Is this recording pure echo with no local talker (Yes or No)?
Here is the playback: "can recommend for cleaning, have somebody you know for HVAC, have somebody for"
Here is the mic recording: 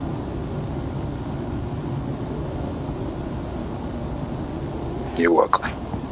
No